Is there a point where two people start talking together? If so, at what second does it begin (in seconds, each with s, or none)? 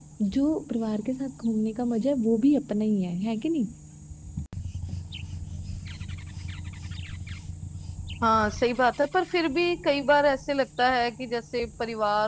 none